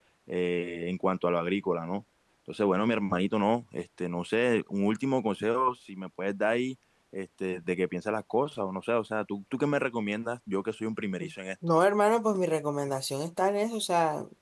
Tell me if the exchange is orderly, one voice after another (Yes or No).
Yes